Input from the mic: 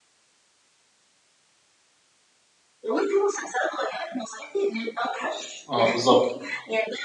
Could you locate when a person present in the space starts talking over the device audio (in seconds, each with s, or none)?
5.7 s